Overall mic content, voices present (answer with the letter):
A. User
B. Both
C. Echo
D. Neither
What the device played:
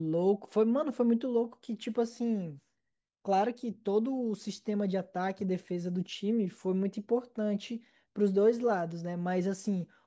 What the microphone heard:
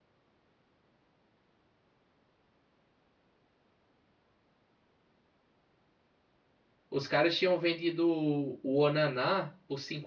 A